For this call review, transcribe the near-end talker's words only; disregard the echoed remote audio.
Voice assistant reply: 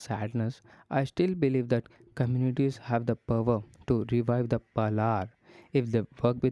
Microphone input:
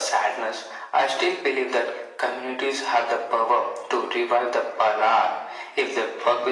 none

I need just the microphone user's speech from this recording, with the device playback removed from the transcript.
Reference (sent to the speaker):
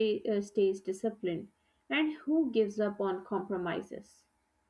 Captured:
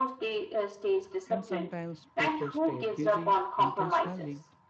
And sometimes people stay busy intentionally

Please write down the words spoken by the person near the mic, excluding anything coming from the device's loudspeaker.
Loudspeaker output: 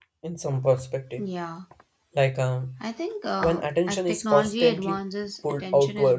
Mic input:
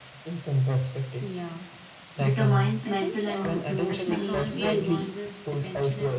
determines mental and emotional well being.

